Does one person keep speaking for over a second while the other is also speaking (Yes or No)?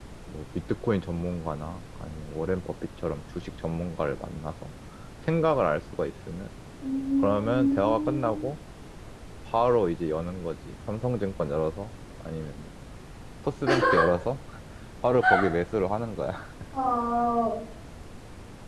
Yes